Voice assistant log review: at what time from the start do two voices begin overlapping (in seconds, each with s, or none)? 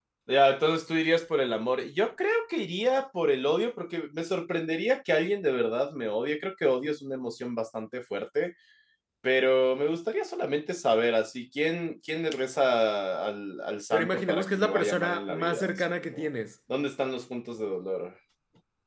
13.9 s